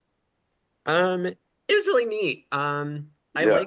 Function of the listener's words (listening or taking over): listening